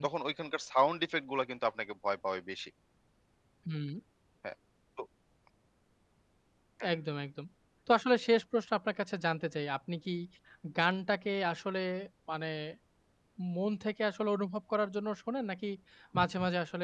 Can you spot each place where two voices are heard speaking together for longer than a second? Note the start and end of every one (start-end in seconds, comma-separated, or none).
none